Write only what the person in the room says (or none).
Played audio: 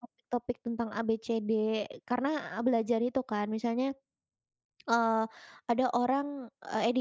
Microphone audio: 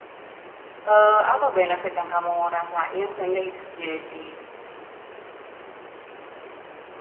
Eee, apa benefit yang kamu rasain sehingga itu jadi